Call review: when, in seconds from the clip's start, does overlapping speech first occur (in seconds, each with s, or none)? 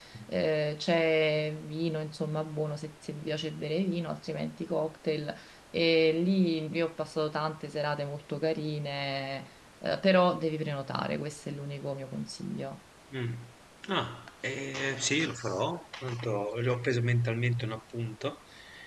none